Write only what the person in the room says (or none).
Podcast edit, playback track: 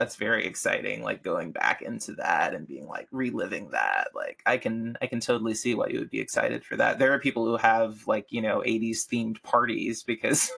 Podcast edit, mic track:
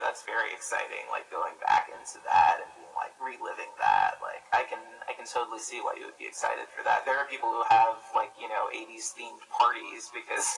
none